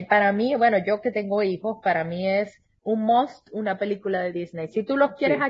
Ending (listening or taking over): listening